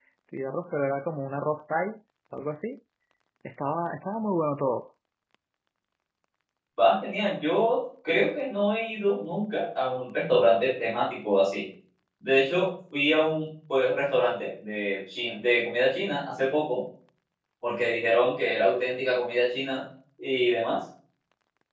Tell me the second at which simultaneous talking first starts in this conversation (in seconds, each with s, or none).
none